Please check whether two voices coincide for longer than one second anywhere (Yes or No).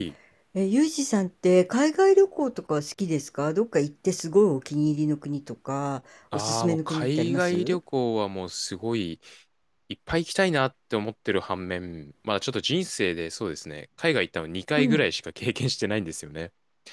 Yes